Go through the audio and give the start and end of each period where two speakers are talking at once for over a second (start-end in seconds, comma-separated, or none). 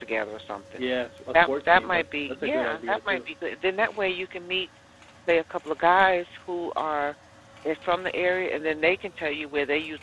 1.3-3.2